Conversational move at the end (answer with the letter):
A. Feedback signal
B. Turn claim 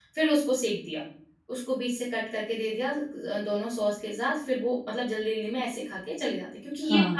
B